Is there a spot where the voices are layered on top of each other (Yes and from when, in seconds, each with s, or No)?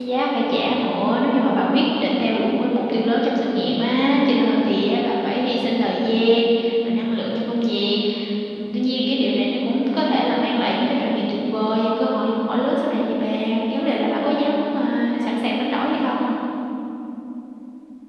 No